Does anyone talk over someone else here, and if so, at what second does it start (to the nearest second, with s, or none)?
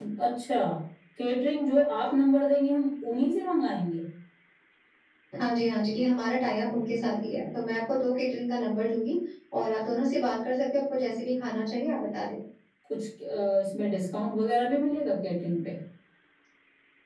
none